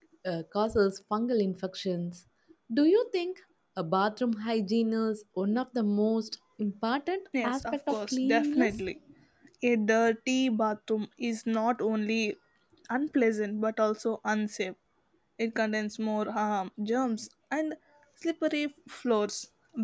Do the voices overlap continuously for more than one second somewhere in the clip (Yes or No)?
Yes